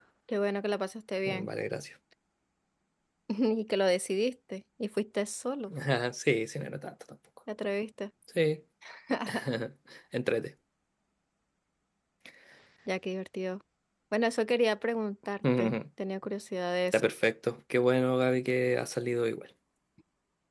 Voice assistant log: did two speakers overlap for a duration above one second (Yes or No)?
No